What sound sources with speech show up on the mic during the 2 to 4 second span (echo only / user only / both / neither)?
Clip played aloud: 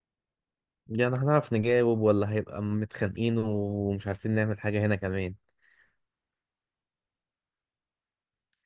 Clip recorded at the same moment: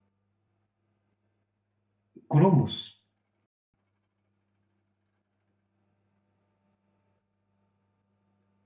user only